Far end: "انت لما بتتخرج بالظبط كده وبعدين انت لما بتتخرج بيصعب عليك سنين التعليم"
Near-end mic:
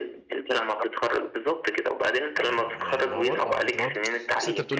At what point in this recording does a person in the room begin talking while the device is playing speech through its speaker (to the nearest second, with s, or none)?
2 s